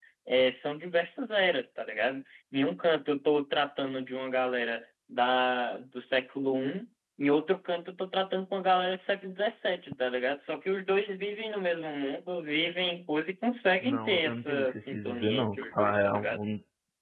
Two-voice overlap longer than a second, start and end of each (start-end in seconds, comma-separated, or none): 13.8-16.4